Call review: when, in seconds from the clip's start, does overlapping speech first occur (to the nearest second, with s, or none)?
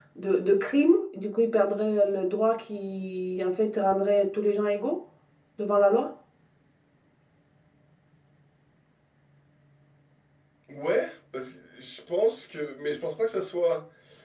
none